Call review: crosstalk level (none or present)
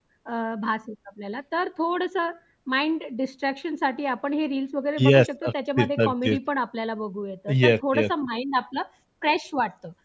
present